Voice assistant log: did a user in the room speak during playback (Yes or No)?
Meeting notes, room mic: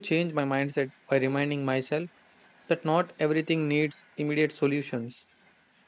Yes